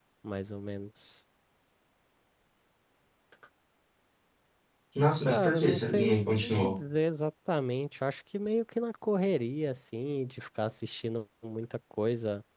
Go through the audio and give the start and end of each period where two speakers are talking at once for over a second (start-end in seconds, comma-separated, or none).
5.2-6.8